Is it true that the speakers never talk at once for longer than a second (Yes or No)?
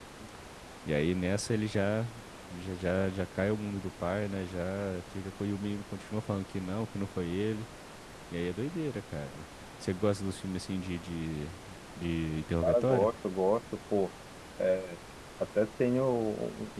Yes